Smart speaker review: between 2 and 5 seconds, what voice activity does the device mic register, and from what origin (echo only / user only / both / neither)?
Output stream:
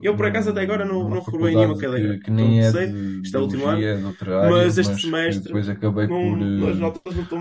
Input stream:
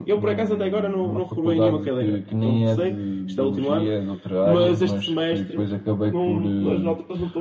echo only